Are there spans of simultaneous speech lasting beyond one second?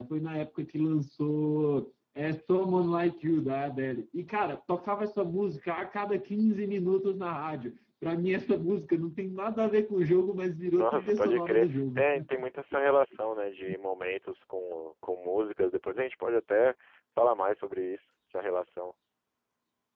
Yes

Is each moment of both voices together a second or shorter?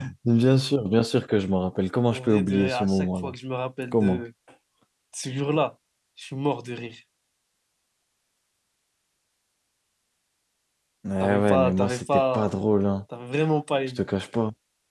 No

